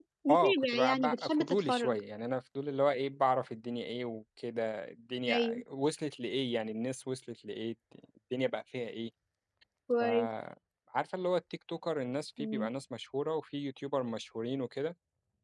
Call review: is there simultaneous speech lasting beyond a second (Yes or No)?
Yes